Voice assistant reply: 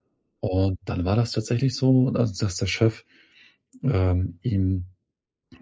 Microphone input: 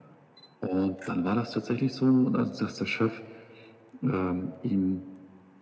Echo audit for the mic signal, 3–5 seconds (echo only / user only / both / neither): echo only